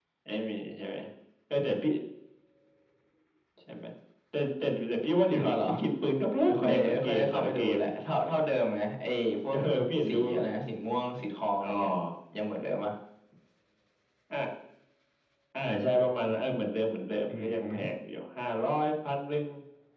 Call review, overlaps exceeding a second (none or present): present